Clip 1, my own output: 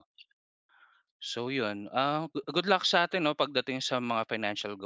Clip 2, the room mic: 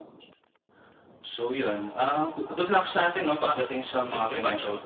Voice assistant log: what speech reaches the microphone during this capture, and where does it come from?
both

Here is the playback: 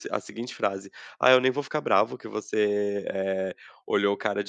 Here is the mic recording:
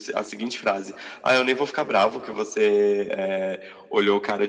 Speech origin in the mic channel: echo only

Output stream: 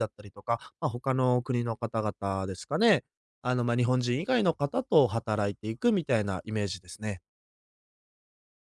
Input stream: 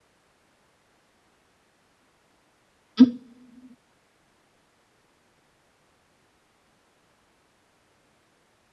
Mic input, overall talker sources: user only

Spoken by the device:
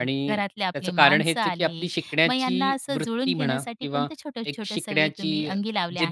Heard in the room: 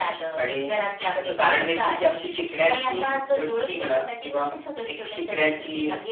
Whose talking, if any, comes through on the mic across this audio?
echo only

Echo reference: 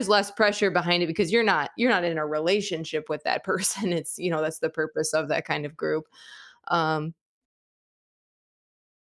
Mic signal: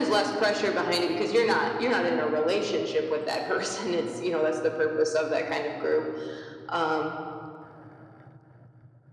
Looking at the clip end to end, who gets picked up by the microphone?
echo only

